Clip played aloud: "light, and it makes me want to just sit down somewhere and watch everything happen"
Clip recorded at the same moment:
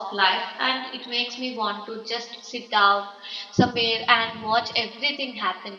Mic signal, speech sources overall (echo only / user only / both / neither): echo only